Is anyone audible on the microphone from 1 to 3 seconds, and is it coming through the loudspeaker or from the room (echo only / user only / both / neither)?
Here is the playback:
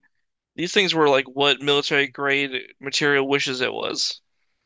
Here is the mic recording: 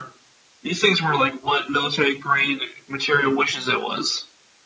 echo only